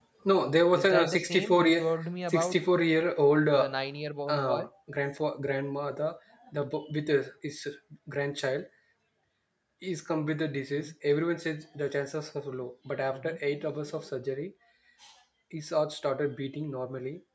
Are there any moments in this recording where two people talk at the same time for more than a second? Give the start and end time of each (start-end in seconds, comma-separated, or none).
0.7-2.6